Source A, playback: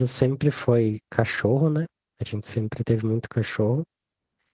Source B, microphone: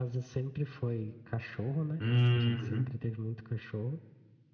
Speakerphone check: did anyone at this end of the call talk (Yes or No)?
Yes